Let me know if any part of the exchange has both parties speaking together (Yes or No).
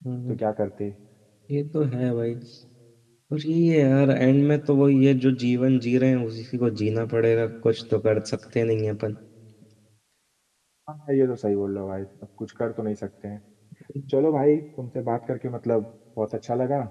No